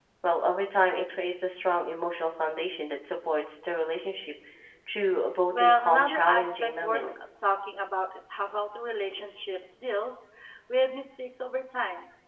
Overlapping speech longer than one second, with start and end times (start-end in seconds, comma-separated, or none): 5.5-7.1